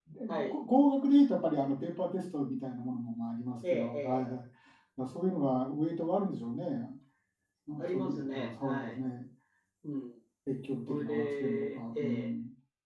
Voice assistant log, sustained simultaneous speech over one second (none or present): present